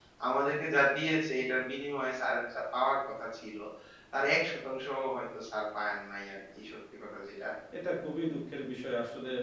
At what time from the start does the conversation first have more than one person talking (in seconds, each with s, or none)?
none